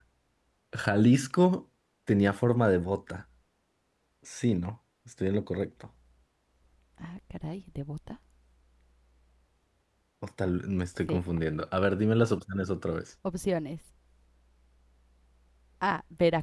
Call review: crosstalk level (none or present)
none